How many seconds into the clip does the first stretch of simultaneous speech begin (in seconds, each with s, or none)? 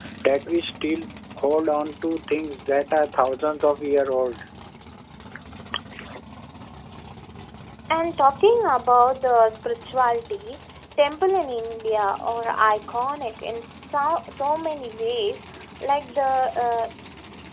none